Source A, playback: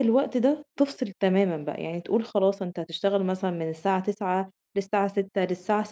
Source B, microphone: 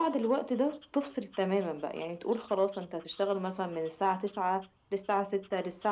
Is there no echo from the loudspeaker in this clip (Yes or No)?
No